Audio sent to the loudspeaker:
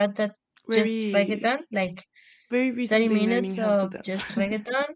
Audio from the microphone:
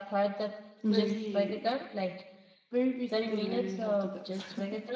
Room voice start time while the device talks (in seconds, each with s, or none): 0.8 s